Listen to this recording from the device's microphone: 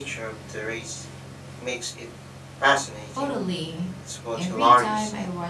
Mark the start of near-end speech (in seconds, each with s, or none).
3.1 s